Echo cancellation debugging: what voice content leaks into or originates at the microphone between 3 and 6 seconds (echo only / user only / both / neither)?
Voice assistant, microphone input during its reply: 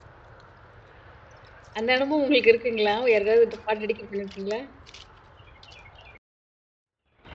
user only